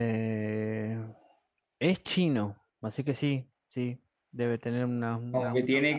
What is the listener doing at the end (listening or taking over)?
taking over